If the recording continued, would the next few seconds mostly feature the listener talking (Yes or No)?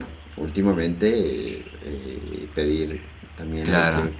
Yes